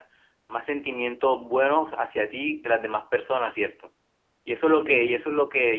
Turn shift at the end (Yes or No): No